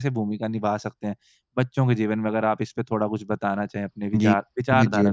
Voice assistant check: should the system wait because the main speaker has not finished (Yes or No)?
No